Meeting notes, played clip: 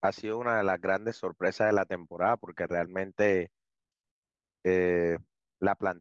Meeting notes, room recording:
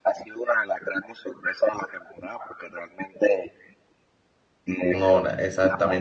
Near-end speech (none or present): present